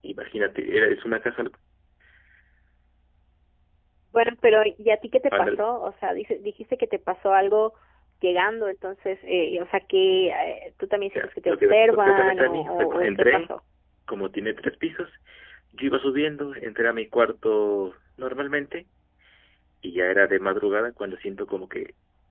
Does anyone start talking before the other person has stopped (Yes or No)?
Yes